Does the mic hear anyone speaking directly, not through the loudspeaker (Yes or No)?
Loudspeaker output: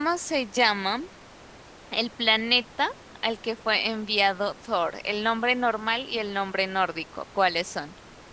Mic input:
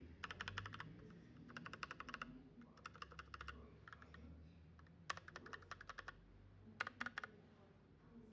No